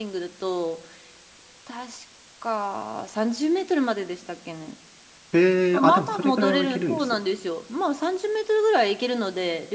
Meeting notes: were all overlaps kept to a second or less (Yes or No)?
No